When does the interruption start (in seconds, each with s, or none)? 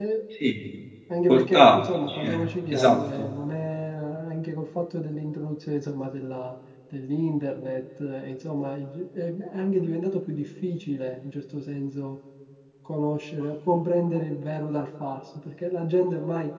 1.3 s